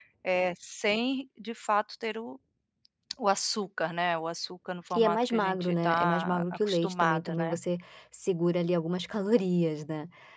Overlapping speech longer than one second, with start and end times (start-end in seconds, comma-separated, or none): 4.9-7.6